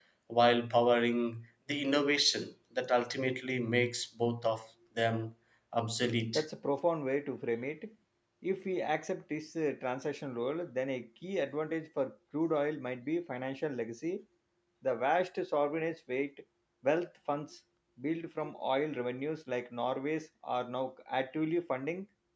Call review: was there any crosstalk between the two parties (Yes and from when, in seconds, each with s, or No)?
No